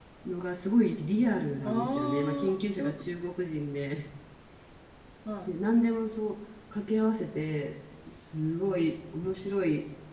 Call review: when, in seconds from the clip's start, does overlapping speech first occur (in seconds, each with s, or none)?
1.6 s